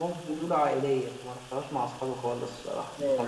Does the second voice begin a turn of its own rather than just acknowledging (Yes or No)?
Yes